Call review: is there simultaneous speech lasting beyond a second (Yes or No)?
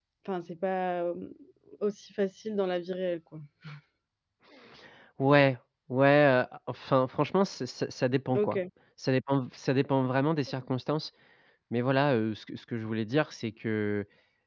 No